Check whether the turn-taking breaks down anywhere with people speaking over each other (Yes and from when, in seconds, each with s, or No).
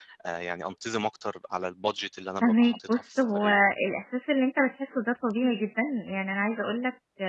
Yes, from 2.4 s